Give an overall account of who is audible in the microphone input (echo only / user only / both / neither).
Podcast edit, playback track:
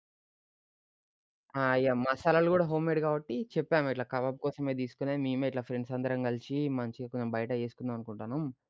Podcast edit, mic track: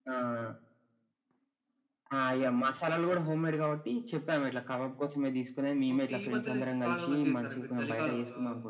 both